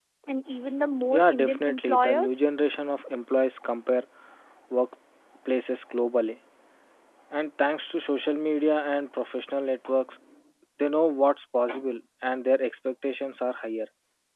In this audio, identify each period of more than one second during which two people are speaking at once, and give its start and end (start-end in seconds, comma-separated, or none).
1.1-2.4